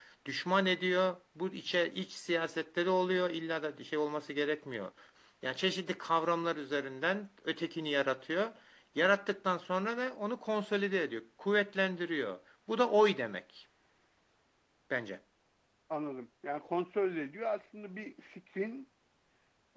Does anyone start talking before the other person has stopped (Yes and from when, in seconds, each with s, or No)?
No